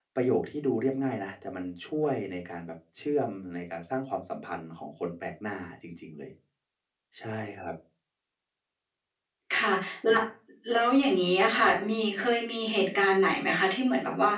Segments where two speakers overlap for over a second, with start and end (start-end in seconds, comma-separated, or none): none